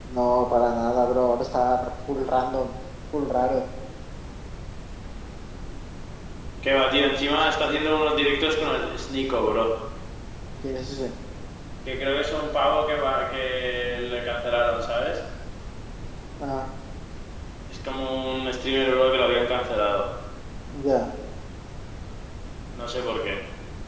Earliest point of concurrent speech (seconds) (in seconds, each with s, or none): none